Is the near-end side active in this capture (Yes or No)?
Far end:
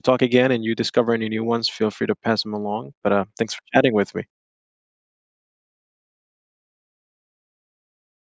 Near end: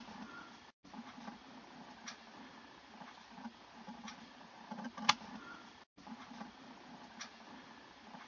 No